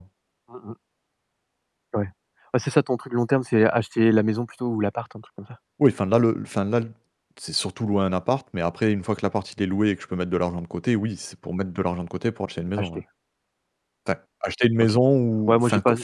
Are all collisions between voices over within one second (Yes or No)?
Yes